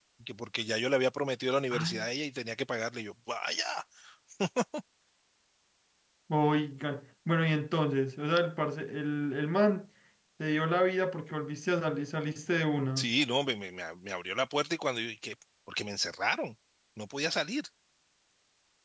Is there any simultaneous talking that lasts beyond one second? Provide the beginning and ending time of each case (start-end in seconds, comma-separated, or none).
none